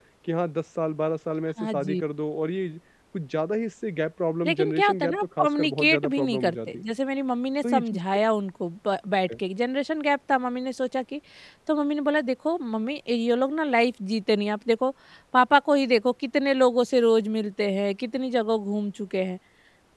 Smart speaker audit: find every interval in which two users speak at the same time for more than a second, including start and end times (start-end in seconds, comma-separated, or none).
4.5-6.8